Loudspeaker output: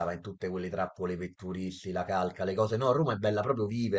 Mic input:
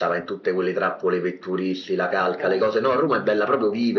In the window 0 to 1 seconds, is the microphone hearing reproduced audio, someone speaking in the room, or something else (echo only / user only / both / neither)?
echo only